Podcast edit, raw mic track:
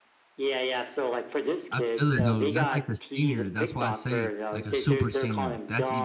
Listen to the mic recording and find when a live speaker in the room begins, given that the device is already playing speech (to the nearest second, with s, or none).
2 s